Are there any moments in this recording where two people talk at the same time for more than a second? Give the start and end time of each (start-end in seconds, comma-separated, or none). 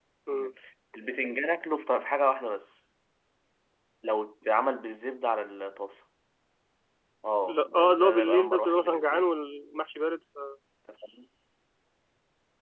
7.5-9.3